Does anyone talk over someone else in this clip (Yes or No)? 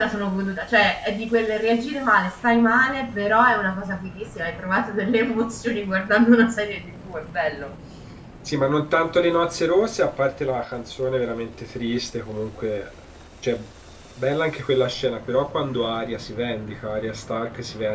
No